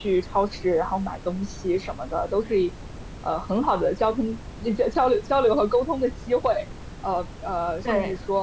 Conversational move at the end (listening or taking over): listening